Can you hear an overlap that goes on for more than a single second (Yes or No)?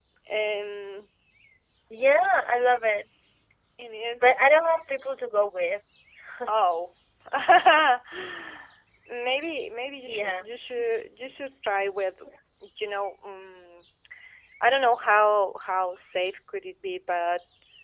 No